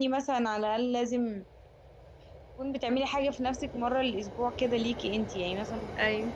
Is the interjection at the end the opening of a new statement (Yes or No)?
No